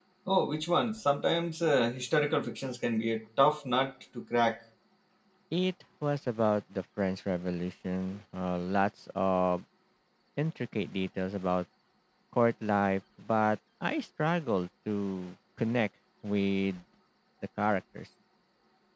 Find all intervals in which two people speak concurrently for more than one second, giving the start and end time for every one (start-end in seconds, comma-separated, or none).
none